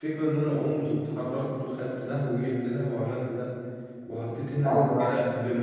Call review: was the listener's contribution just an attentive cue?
Yes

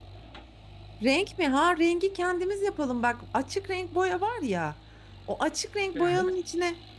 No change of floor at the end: Yes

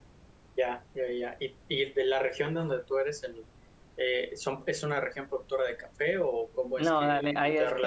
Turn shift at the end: Yes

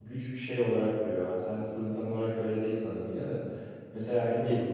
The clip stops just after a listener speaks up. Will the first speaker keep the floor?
Yes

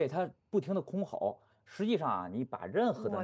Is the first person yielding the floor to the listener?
No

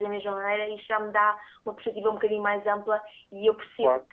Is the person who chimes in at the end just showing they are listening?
Yes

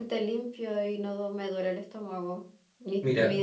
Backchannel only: Yes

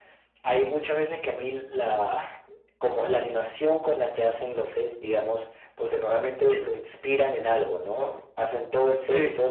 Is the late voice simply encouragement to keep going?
Yes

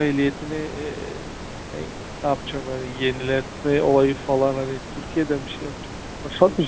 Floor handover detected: Yes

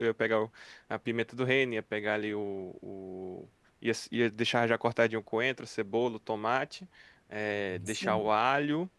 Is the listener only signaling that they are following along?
Yes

